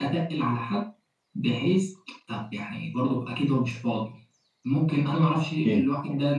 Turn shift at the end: No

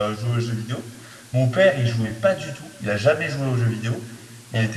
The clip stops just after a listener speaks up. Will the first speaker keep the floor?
Yes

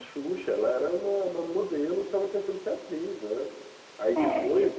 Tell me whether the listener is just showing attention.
Yes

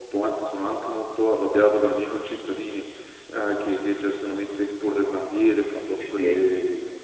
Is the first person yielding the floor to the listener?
No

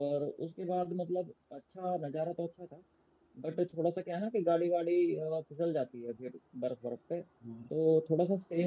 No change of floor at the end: Yes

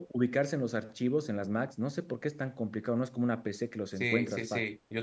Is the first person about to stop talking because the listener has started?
Yes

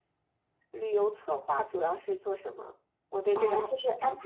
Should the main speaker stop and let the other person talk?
Yes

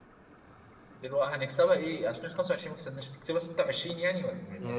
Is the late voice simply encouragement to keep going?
No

